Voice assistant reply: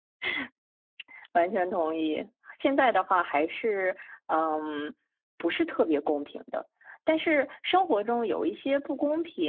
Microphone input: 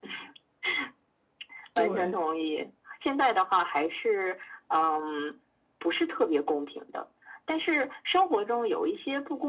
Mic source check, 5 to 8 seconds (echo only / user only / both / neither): echo only